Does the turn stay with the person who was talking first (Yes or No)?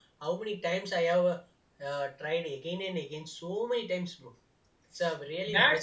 No